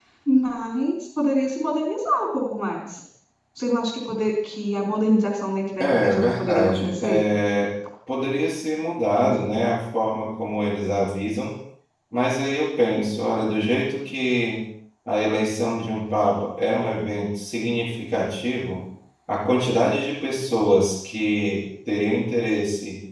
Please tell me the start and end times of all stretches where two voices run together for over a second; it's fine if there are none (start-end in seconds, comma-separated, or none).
5.8-7.2